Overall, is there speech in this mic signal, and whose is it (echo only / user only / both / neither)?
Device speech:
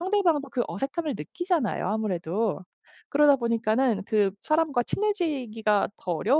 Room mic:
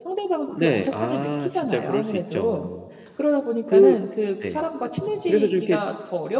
both